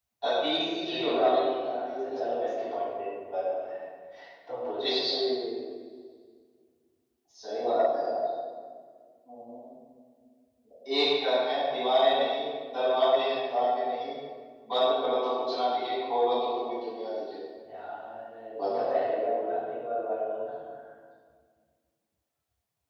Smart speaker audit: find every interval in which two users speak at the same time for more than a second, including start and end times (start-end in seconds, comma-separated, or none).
0.5-2.1